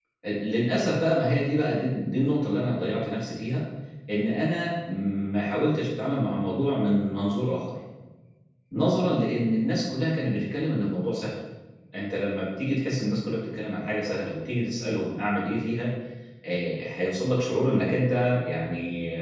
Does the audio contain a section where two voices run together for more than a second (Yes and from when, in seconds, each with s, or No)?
No